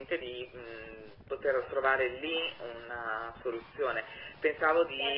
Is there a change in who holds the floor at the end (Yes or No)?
Yes